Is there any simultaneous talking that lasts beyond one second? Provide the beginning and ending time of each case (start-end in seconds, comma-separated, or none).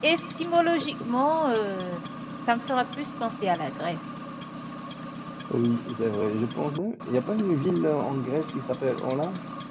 none